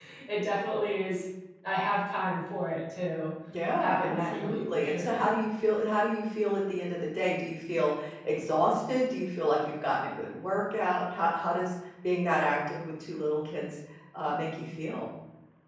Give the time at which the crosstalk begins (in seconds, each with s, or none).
3.8 s